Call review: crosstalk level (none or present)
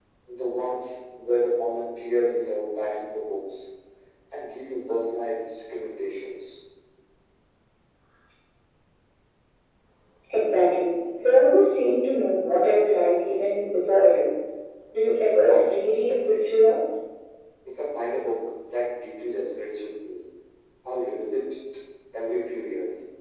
present